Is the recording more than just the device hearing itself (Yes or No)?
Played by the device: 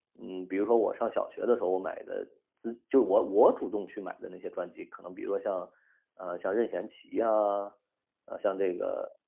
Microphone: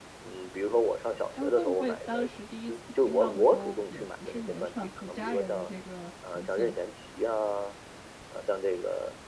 Yes